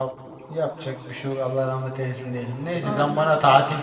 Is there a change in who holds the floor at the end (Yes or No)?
No